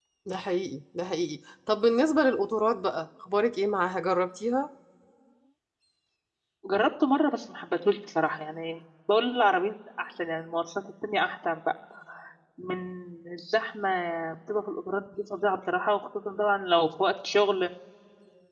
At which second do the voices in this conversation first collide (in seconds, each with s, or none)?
none